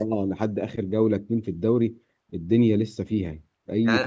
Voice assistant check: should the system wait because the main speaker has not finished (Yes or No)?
No